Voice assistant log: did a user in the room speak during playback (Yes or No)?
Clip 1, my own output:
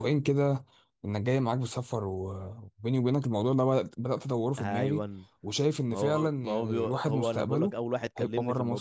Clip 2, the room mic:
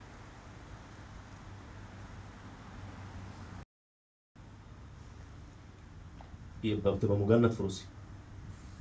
Yes